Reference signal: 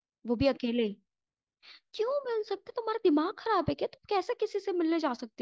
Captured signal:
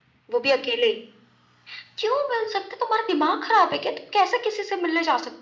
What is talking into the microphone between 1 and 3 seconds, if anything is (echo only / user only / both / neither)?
echo only